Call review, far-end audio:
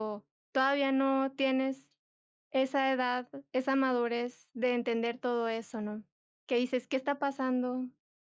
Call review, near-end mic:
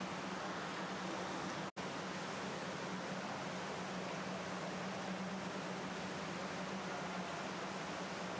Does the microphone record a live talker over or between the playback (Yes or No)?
No